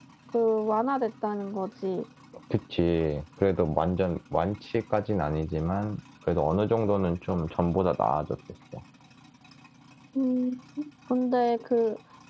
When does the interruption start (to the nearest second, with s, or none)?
none